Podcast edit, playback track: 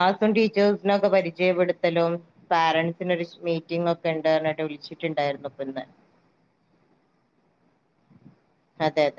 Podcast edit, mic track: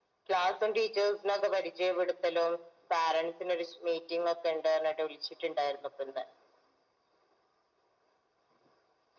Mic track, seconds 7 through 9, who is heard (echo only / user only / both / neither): neither